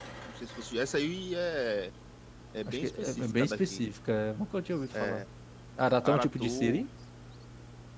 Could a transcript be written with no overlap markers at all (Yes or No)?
No